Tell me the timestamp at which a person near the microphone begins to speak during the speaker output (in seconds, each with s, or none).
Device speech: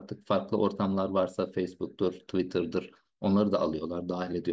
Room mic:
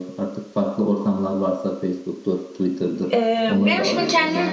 3.1 s